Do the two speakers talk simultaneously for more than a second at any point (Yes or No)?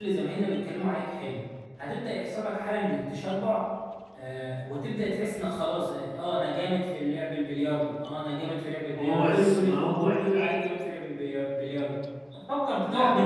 Yes